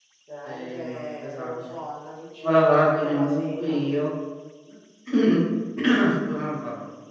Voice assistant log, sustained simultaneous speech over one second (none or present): present